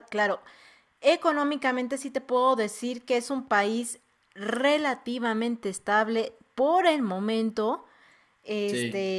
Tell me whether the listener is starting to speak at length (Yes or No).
No